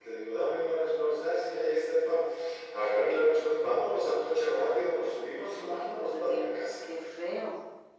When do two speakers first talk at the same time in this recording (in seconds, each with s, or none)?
5.5 s